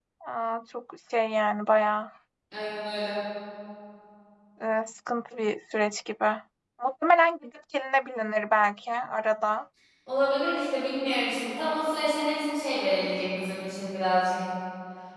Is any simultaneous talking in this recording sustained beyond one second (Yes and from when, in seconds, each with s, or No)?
No